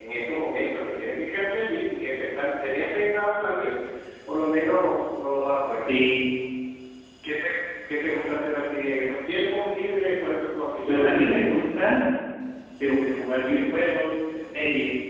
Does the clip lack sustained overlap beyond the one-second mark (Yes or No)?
Yes